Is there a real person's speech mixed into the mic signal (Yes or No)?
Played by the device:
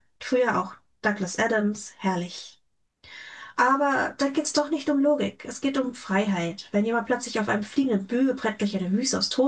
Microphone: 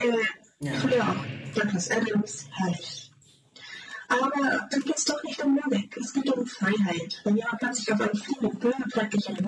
Yes